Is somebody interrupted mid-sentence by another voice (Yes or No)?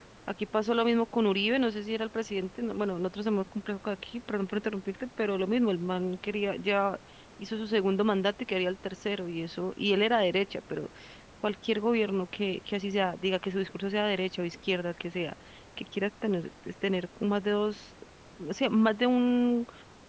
No